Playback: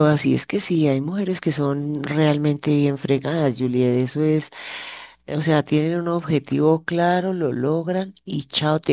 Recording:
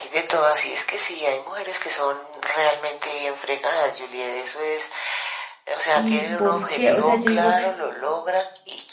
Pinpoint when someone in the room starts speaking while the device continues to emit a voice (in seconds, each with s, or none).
5.9 s